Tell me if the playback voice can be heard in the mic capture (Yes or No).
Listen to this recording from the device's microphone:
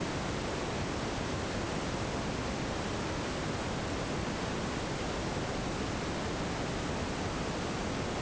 No